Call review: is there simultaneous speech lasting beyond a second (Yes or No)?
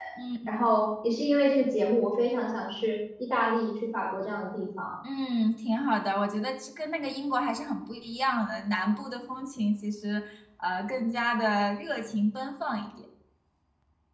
No